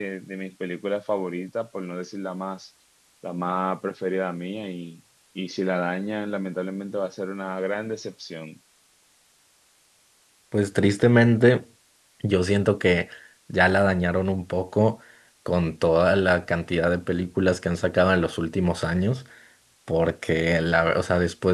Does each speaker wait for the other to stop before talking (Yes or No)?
Yes